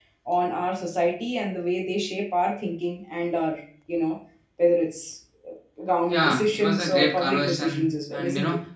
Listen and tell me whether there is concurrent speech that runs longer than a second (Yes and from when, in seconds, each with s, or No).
Yes, from 6.1 s